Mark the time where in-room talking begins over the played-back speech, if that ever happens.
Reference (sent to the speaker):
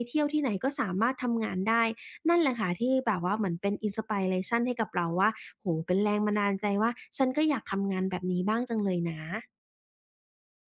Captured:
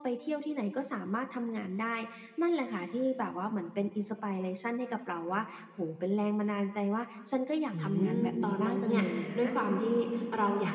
7.7 s

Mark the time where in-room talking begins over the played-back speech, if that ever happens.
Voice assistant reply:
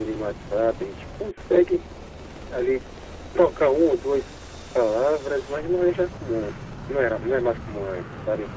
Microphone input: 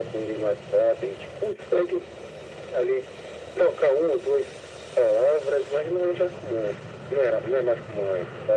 none

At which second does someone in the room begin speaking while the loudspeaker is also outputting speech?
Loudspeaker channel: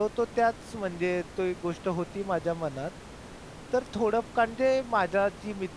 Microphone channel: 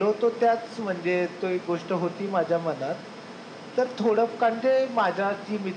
none

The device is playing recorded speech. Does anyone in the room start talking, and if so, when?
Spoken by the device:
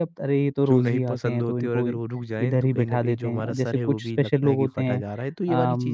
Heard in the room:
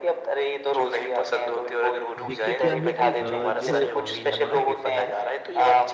2.2 s

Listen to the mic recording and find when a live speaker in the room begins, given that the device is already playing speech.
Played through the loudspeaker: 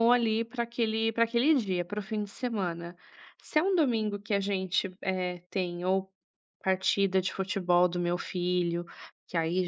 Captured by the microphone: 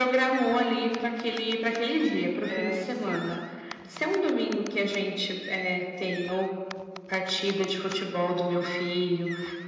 2.5 s

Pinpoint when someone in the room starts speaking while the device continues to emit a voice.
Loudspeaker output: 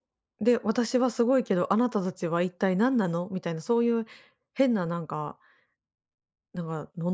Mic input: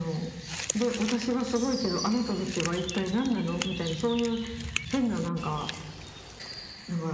none

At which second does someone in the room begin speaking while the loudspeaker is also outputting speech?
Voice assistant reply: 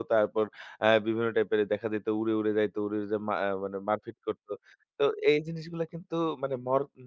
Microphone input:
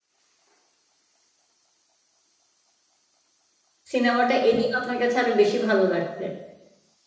3.9 s

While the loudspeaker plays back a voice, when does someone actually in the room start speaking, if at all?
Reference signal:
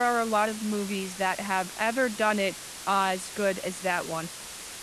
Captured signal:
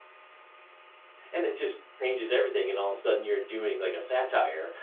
1.3 s

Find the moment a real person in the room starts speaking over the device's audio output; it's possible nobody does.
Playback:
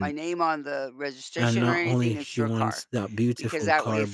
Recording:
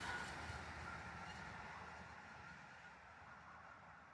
none

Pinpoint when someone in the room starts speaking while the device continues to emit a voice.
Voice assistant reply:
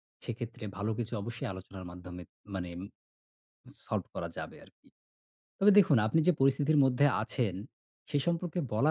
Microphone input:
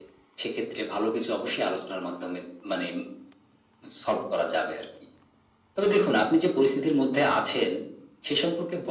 none

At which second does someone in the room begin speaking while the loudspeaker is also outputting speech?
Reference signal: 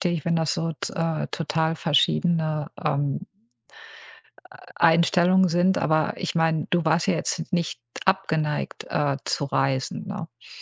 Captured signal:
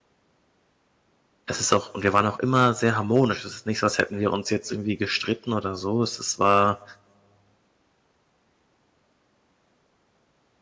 1.5 s

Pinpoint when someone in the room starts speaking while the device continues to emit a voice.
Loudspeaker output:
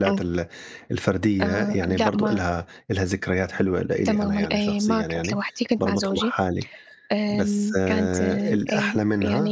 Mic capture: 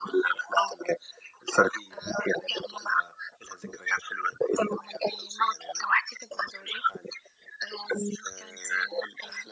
none

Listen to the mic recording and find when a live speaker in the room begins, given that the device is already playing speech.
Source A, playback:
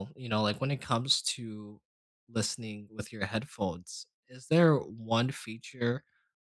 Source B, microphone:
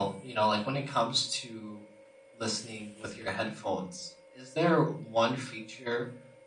none

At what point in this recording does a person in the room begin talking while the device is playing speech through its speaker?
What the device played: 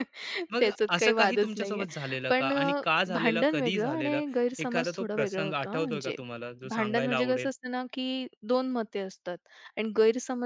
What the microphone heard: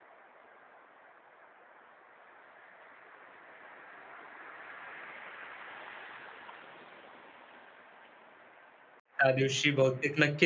9.2 s

